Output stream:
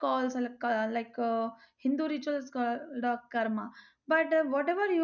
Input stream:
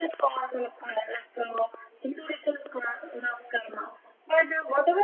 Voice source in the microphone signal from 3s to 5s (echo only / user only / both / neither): echo only